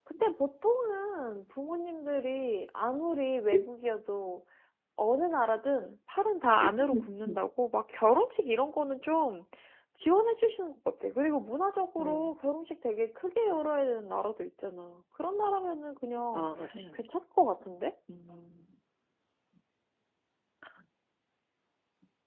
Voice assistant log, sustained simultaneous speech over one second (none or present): none